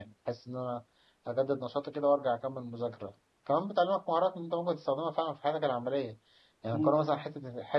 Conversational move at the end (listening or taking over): listening